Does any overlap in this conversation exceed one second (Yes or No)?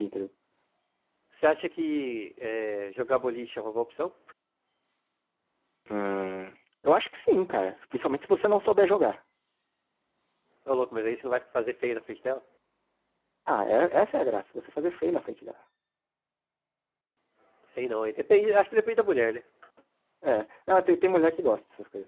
No